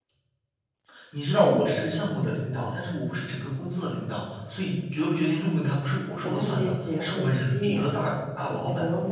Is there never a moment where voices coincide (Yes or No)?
No